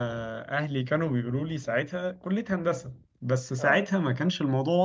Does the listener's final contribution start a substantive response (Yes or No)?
No